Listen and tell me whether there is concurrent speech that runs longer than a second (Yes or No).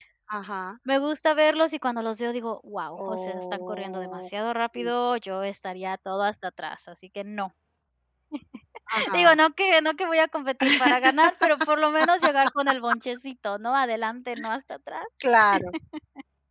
Yes